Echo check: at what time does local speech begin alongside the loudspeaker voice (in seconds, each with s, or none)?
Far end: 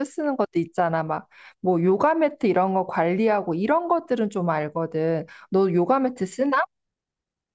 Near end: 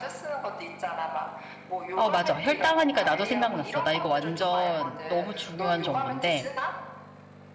1.9 s